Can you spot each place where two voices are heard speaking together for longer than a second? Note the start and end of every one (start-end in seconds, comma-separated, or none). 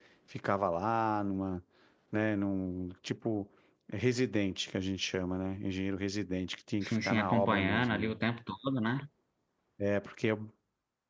6.8-8.1